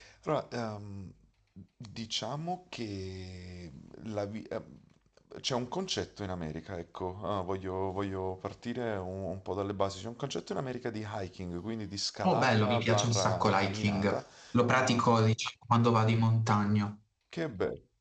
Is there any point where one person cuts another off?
Yes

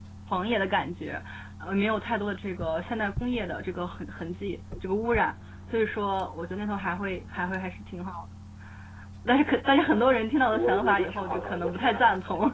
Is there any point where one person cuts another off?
Yes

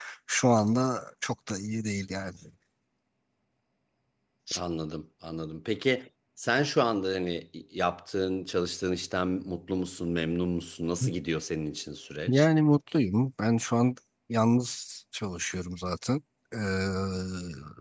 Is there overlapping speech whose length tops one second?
No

